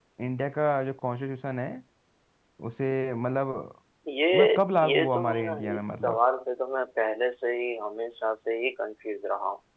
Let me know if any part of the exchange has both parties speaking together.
Yes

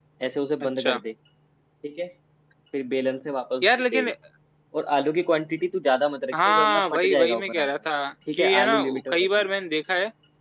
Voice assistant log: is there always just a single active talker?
No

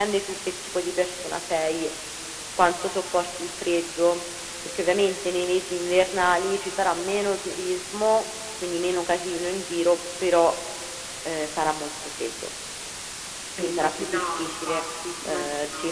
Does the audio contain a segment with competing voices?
Yes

